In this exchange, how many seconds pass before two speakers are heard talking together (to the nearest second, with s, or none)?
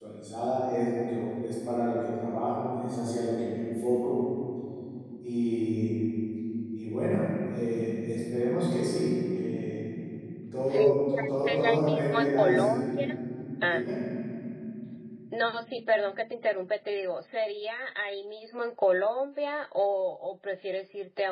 11 s